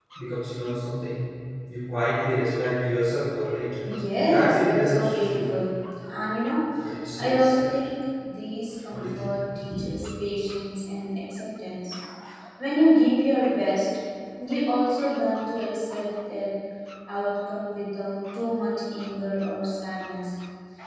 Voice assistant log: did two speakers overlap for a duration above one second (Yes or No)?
Yes